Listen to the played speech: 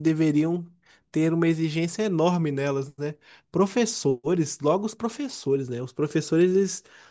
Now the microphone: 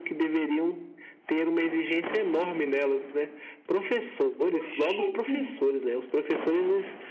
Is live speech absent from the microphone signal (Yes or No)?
No